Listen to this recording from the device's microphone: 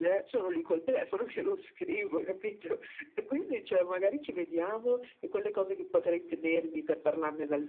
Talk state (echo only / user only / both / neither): echo only